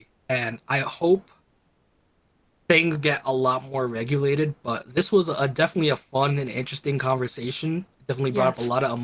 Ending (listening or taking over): listening